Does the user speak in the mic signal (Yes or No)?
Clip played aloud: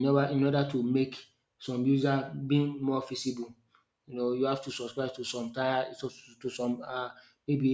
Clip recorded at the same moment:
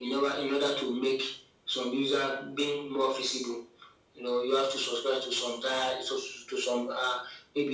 No